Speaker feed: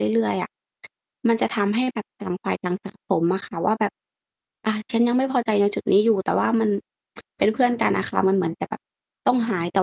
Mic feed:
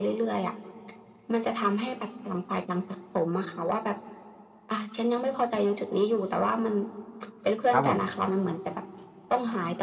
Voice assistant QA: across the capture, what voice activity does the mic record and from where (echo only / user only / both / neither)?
both